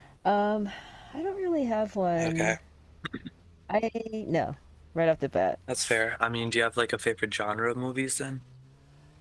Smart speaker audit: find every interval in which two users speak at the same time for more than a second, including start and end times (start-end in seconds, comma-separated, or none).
none